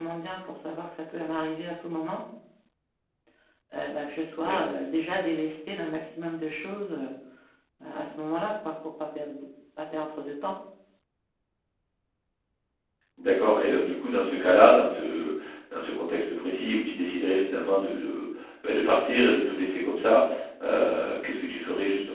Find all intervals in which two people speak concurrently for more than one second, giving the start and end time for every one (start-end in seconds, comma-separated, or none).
none